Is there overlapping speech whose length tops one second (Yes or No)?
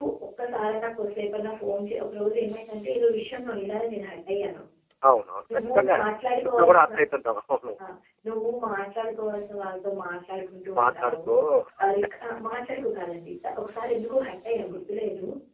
Yes